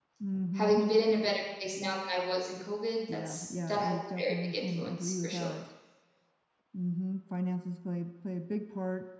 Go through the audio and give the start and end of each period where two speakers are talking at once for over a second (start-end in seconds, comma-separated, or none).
3.1-5.5